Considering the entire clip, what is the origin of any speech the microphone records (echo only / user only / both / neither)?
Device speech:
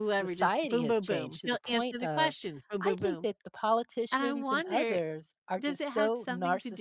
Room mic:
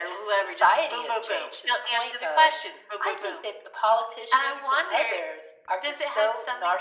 echo only